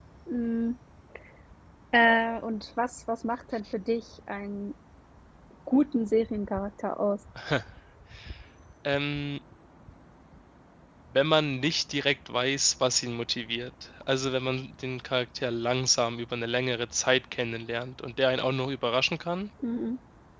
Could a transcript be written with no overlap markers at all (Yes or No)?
Yes